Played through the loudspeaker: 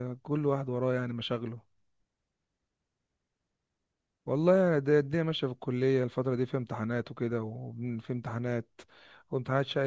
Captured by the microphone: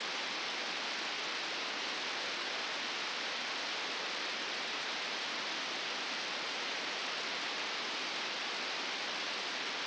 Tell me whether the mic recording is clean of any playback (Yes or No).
Yes